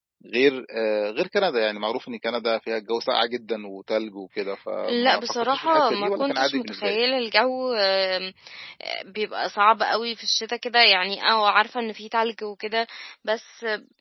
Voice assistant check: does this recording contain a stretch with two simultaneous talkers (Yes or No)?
Yes